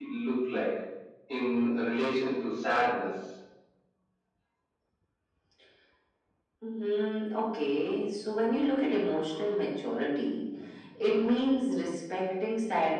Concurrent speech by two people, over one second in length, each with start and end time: none

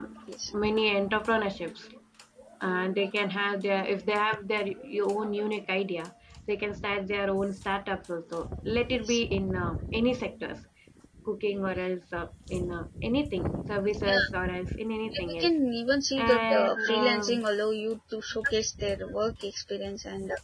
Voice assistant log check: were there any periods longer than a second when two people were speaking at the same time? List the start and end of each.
16.2-17.4

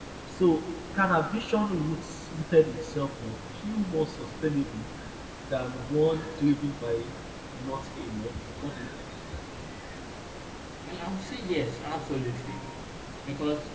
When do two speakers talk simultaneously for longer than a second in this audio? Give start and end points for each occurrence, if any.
none

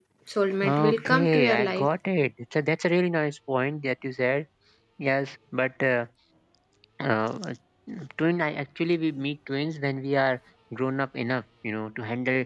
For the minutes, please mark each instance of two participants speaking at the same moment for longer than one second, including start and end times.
0.6-1.9

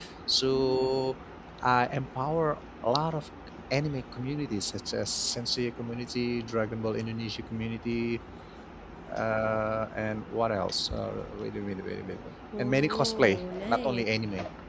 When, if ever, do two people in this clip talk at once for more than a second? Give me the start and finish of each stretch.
12.6-14.0

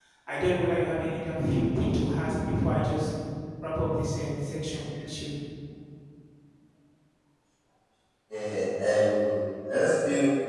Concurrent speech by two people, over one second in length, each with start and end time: none

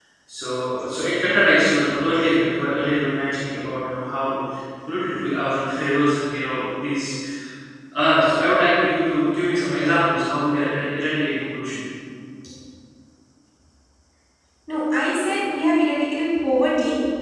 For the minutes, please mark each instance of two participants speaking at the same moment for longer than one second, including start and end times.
none

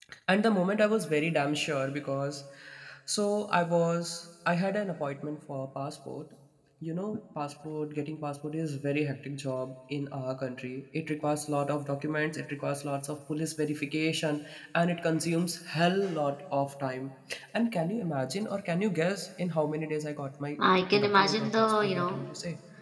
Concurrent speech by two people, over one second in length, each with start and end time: 21.0-22.2

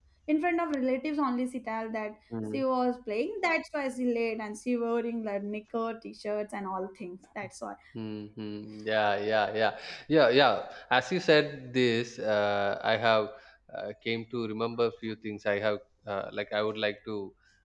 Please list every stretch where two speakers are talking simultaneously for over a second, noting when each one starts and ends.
none

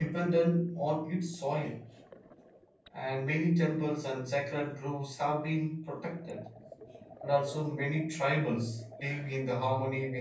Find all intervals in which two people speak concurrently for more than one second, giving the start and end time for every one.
none

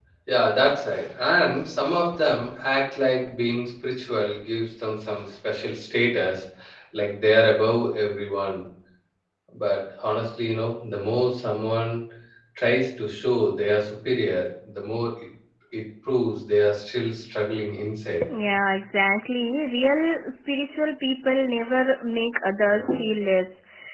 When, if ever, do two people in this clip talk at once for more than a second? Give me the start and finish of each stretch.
none

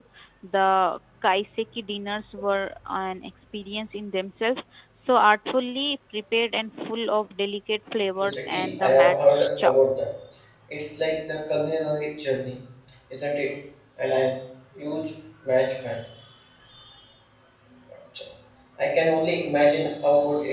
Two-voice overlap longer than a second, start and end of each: 8.2-9.7

